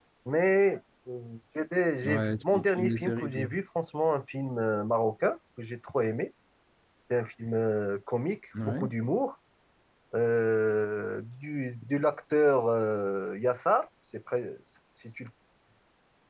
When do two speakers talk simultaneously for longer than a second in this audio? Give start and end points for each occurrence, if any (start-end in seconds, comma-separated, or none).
2.0-3.5